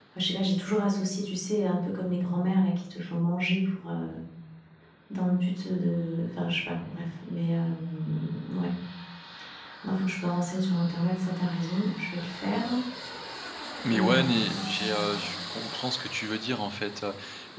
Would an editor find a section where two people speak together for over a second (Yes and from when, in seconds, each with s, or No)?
Yes, from 13.9 s